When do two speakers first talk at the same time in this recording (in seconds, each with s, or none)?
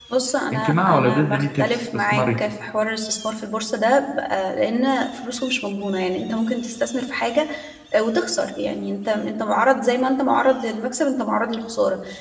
0.5 s